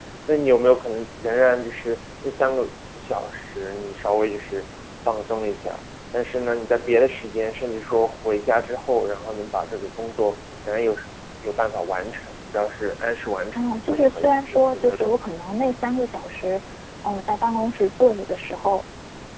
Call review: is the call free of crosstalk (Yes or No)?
No